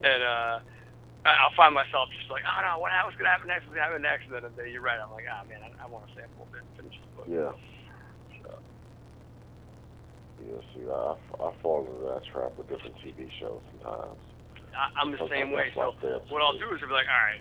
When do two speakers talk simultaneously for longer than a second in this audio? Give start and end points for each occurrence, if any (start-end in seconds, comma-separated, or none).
15.0-16.7